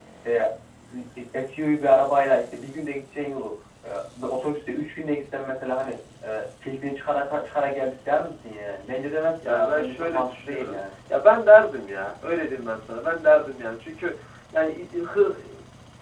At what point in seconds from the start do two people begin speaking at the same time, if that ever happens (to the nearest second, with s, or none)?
9 s